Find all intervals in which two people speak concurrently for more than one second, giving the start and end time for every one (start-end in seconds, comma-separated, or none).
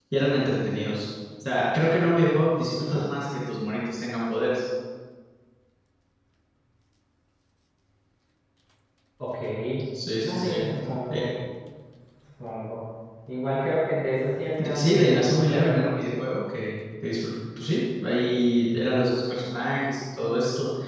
14.6-15.9